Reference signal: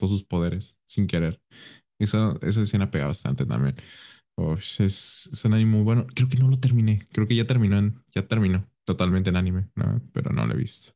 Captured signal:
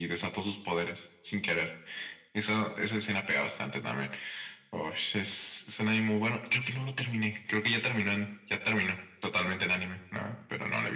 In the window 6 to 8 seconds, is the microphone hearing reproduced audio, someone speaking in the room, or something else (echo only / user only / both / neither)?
echo only